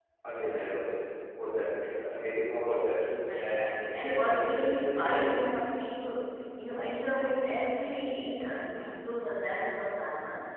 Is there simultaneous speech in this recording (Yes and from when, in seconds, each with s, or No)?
Yes, from 3.2 s